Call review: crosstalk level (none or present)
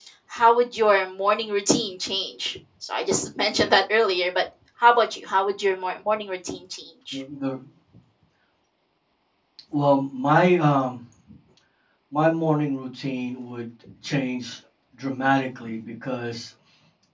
none